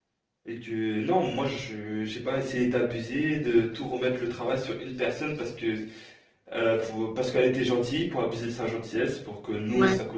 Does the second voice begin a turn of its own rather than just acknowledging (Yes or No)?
No